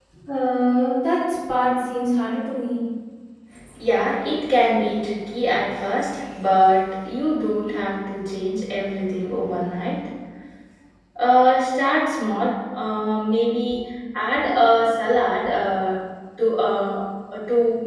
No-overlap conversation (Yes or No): Yes